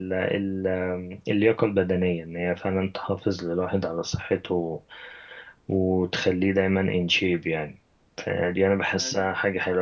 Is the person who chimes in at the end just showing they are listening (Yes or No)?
Yes